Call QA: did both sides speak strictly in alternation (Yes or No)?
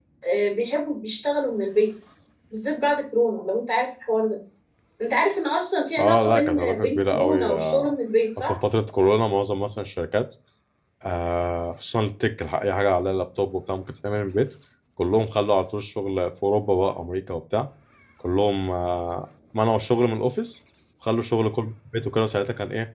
No